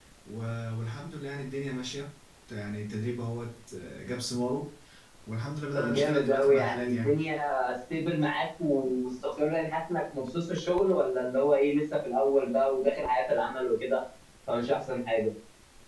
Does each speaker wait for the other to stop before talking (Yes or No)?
No